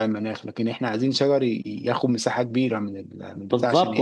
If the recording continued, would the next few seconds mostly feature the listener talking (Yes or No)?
Yes